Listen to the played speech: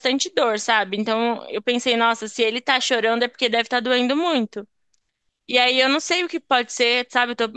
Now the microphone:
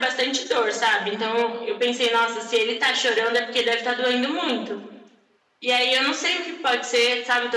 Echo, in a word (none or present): present